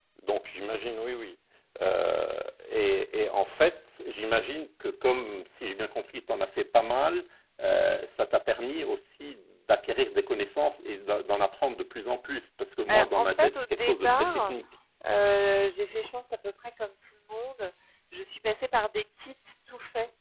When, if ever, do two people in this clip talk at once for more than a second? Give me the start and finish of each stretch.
12.9-14.6

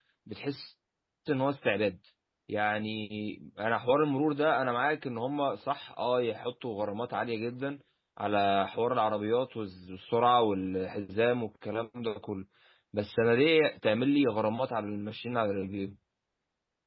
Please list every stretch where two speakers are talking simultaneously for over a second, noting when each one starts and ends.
none

